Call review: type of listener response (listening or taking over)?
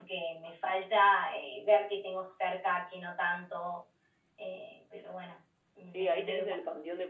taking over